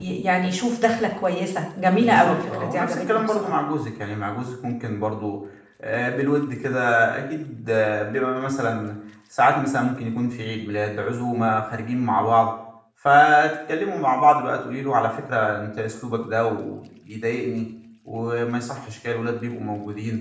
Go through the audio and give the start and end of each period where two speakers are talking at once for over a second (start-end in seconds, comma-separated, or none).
2.0-3.5